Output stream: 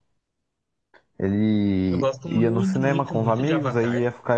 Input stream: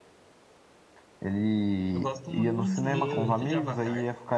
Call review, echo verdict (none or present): present